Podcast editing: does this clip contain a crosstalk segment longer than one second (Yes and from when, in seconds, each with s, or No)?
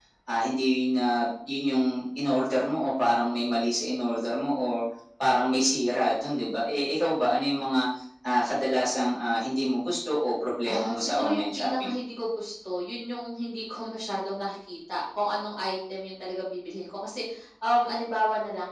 Yes, from 10.6 s